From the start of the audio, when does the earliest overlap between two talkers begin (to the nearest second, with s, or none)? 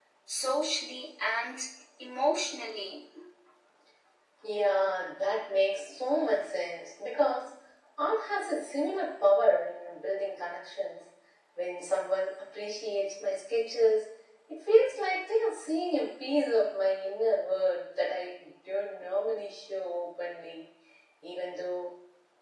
none